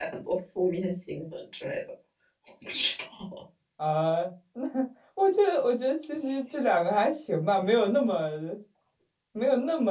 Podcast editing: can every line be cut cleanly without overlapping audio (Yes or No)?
Yes